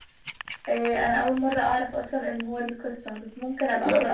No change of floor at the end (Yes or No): No